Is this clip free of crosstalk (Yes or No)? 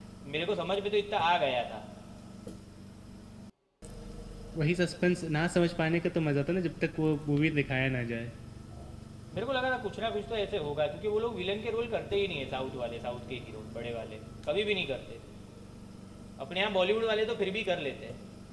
Yes